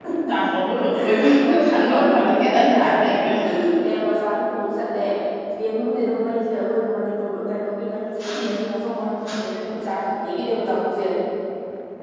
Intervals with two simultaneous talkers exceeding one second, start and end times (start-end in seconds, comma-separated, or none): 1.6-2.9